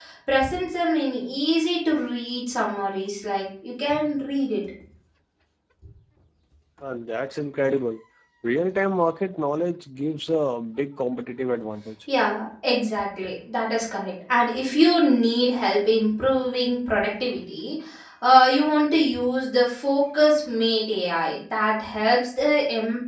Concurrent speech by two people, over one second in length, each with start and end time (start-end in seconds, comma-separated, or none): none